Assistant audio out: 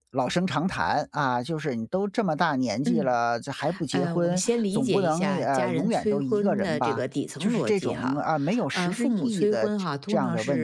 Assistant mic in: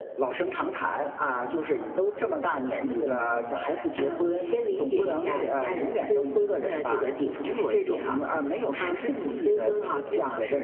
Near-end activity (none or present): none